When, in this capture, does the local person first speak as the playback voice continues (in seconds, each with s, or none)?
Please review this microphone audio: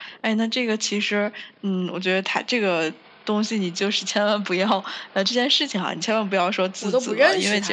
6.8 s